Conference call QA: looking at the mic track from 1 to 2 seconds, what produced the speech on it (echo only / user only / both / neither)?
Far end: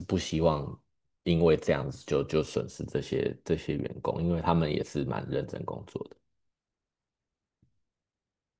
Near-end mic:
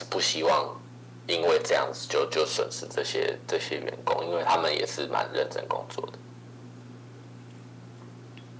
echo only